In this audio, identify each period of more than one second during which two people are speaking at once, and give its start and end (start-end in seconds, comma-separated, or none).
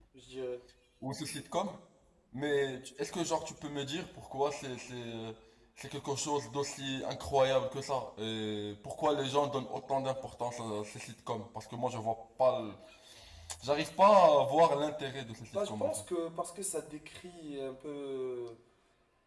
none